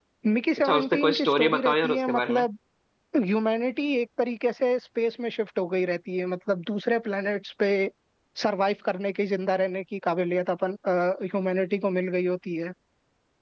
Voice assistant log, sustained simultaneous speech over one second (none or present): present